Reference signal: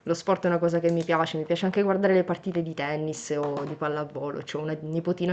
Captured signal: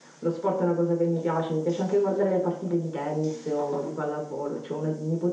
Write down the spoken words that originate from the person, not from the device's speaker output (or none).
none